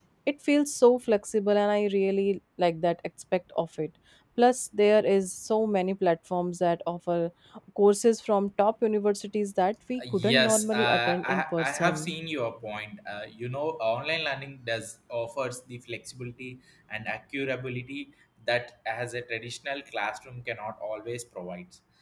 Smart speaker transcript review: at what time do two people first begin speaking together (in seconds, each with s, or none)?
10.0 s